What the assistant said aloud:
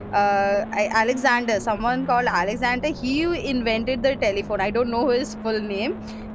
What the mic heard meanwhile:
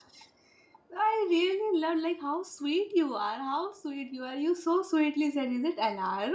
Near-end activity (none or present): present